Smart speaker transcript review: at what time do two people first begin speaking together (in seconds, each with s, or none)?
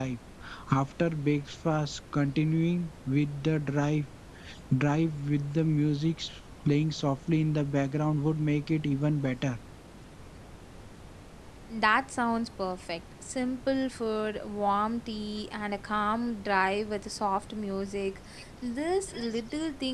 none